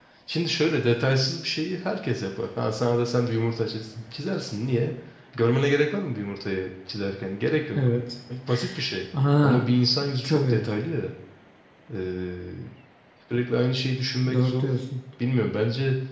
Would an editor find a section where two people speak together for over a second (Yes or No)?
No